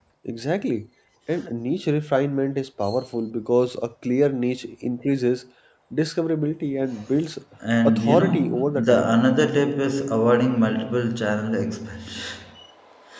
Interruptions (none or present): present